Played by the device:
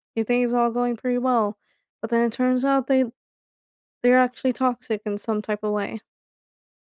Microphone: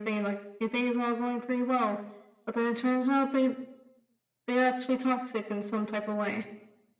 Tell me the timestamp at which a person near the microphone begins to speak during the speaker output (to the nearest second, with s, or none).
none